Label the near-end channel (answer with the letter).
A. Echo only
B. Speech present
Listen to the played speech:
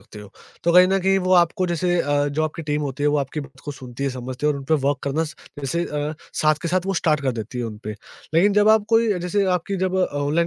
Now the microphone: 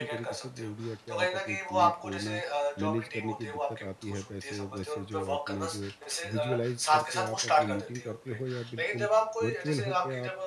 B